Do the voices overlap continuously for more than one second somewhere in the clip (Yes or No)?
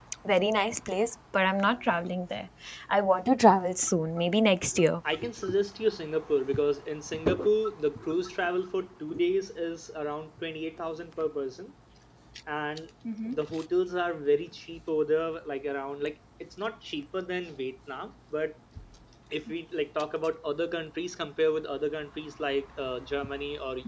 No